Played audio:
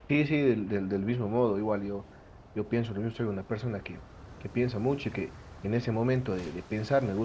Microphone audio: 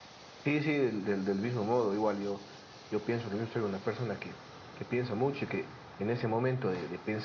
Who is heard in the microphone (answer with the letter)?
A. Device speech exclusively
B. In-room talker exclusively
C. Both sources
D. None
A